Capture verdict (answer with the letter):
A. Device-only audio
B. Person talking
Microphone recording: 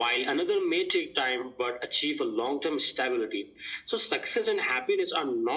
A